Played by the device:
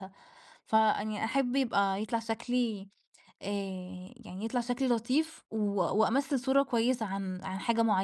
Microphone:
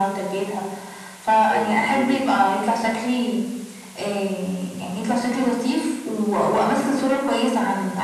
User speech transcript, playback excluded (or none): أيوه جميل.